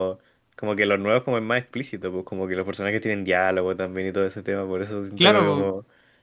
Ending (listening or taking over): listening